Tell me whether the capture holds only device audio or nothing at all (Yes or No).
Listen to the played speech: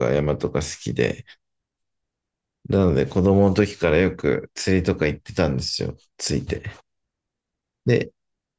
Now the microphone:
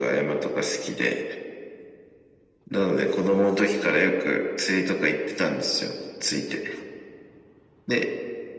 Yes